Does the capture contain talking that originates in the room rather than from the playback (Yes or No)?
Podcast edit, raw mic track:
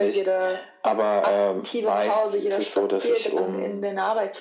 No